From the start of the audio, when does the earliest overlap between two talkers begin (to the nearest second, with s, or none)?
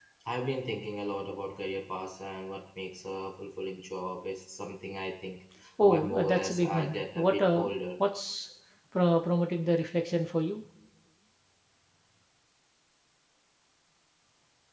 6 s